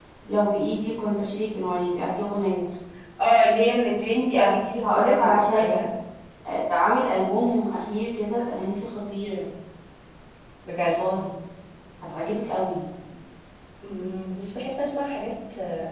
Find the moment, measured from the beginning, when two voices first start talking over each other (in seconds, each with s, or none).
4.3 s